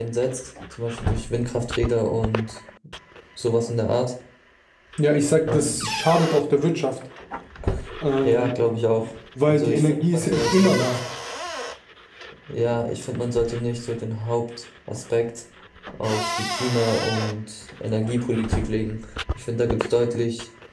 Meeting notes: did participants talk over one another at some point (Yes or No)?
Yes